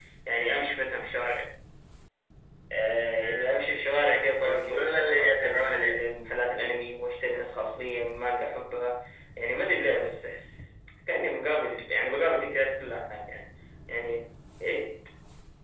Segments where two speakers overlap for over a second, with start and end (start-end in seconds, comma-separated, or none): 4.2-6.0